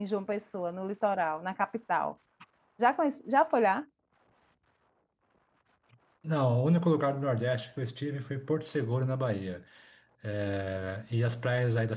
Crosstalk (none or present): none